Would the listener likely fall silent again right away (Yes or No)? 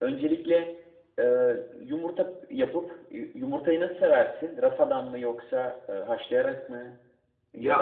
No